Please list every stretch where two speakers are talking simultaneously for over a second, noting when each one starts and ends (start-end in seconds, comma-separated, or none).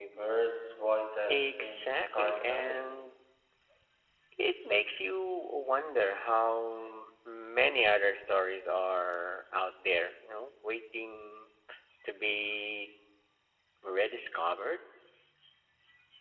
1.3-2.9